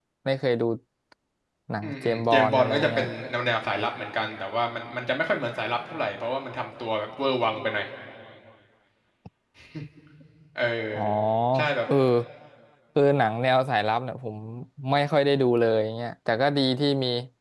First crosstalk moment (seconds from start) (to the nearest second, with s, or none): 2 s